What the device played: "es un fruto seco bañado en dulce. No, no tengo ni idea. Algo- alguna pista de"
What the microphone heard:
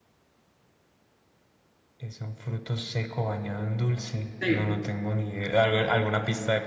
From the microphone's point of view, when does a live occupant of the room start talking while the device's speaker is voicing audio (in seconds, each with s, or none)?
4.4 s